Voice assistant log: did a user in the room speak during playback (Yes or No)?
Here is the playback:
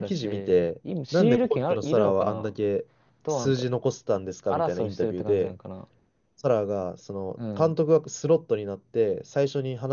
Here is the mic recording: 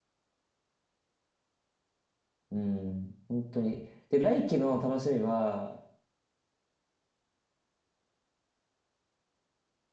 Yes